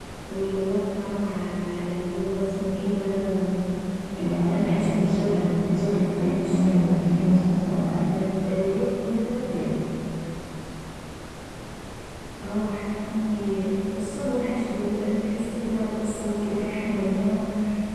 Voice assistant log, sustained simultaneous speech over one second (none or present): present